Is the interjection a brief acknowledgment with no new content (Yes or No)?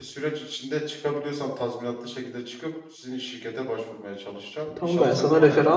No